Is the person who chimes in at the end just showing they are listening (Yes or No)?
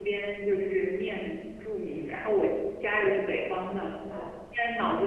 Yes